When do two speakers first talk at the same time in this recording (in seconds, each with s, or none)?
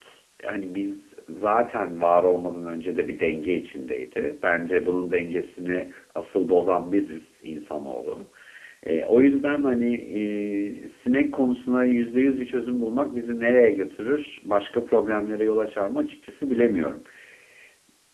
none